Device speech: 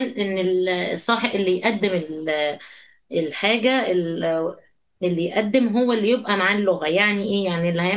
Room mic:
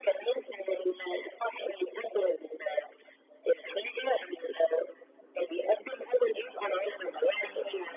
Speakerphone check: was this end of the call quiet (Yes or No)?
Yes